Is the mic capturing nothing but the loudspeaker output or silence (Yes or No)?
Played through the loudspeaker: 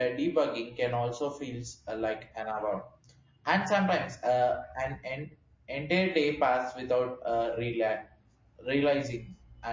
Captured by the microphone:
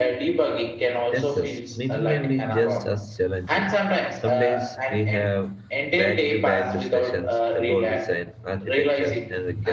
No